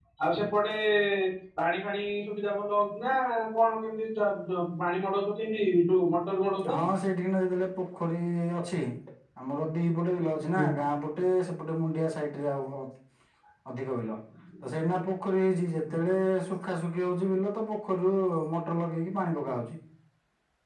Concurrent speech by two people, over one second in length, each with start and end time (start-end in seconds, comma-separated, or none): none